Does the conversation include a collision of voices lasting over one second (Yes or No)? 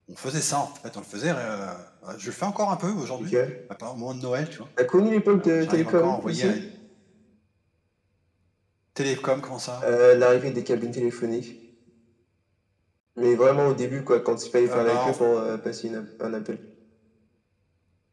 Yes